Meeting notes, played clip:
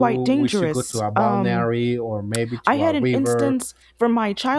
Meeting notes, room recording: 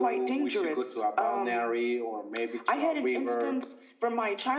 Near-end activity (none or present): none